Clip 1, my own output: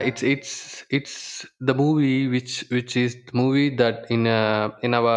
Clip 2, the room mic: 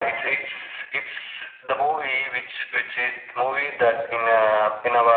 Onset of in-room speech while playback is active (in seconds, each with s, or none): none